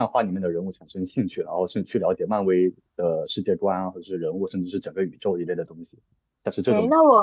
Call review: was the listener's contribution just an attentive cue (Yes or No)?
No